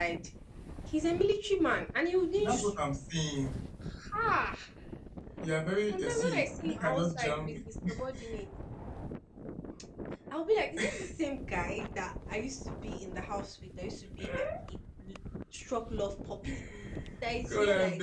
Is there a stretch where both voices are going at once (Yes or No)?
Yes